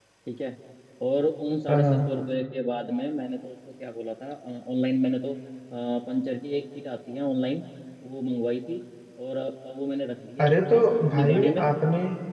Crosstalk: present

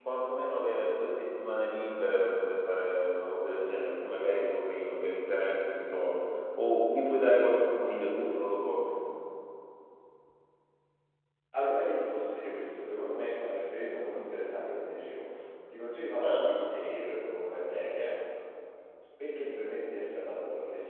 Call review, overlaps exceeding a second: none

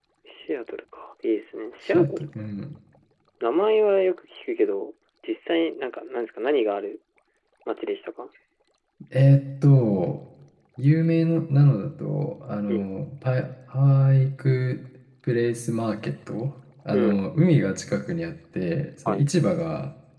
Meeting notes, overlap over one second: none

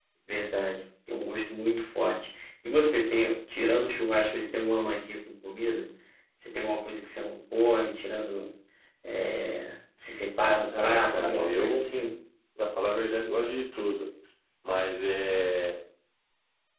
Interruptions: present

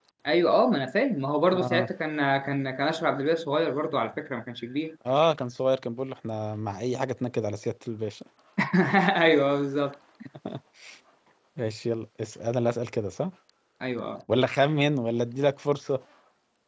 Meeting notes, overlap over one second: none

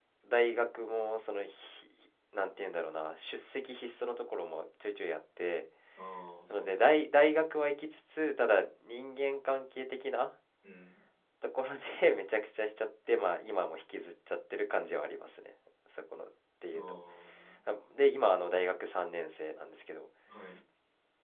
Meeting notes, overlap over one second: none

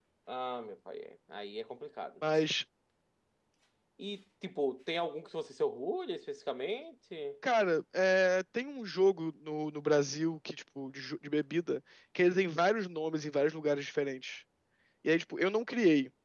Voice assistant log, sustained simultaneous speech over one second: none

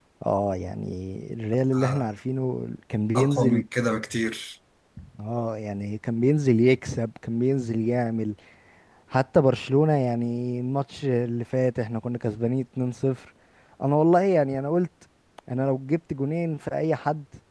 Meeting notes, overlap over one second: none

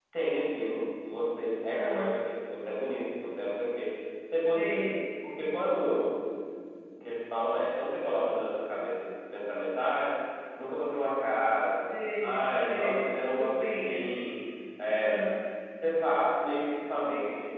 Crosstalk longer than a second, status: present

